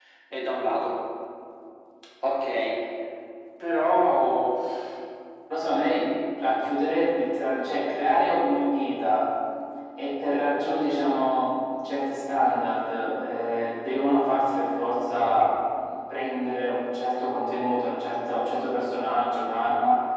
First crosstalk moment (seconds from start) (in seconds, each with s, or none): none